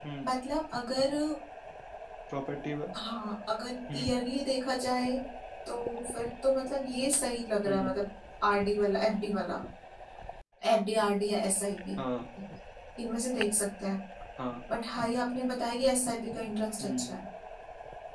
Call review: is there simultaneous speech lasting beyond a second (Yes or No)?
No